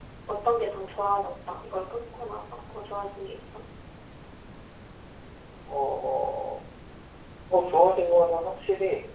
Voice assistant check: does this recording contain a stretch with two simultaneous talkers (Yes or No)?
No